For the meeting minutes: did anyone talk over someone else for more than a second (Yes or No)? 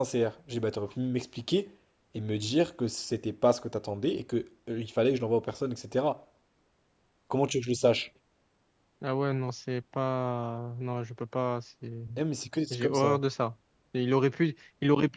No